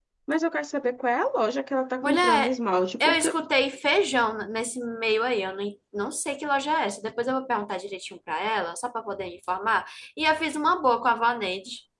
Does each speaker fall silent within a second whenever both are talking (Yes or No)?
Yes